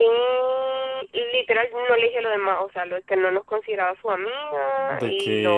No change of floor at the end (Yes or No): No